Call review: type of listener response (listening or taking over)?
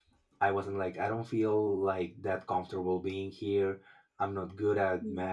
listening